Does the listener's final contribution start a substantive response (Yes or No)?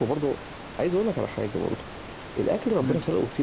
No